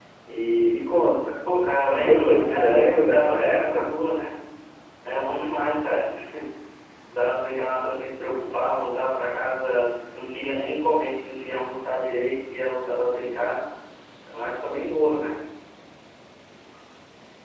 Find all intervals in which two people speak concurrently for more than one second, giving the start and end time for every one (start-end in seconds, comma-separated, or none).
1.9-3.9